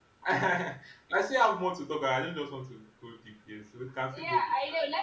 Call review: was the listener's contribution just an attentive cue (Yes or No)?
No